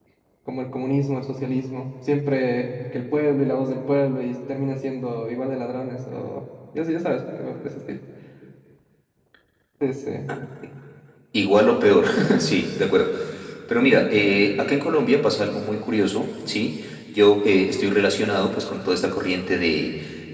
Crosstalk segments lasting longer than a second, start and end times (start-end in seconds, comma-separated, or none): none